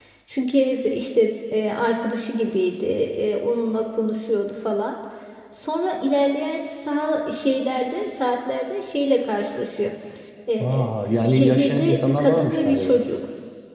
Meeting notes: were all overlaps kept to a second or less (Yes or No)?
No